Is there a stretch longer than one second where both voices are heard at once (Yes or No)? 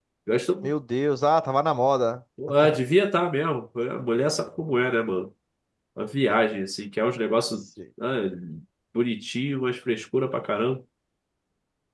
No